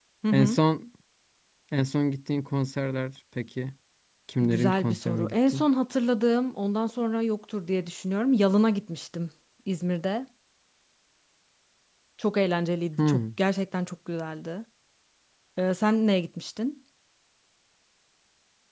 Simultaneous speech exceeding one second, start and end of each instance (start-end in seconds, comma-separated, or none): 4.4-5.7